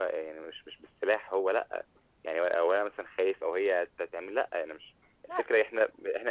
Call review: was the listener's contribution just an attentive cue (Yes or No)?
Yes